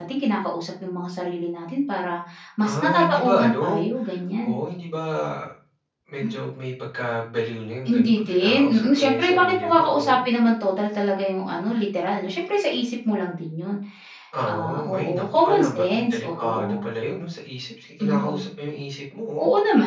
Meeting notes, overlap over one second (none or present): present